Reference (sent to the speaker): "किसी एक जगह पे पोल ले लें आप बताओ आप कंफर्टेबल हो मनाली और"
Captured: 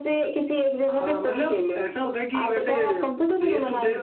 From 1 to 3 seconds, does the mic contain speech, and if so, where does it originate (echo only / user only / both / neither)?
both